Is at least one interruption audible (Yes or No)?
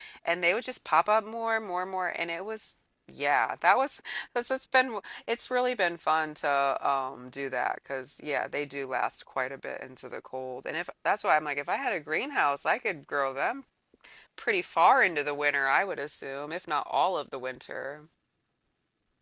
No